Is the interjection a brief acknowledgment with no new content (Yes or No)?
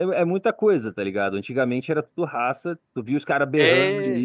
Yes